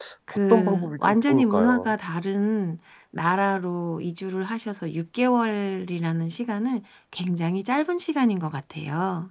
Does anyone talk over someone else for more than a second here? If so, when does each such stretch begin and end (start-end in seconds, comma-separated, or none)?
0.5-1.9